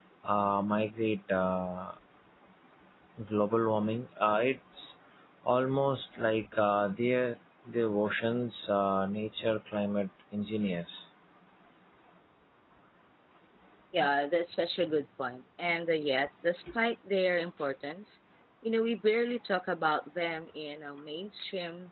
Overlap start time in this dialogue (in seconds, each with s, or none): none